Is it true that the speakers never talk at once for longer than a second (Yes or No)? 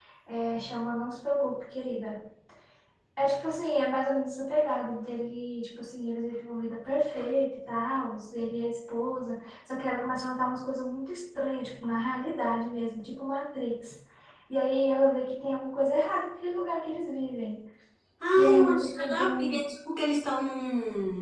No